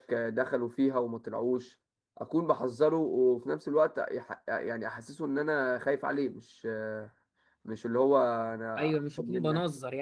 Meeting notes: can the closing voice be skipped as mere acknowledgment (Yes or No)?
No